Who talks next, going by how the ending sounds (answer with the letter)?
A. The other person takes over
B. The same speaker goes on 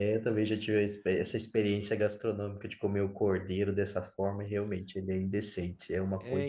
A